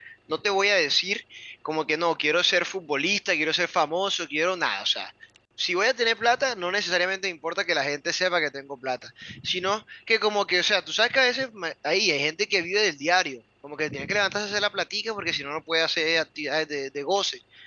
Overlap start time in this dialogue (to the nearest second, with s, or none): none